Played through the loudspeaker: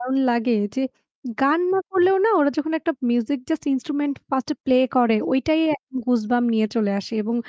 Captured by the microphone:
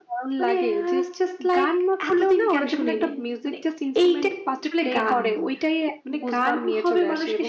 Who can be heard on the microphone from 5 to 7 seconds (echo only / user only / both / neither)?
both